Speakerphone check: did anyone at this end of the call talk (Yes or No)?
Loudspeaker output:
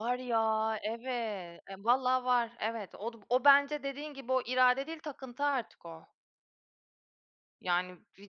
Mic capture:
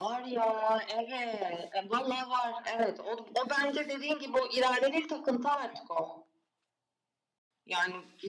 No